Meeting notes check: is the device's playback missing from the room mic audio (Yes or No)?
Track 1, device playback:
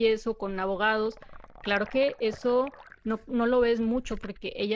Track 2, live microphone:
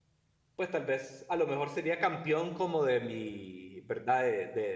Yes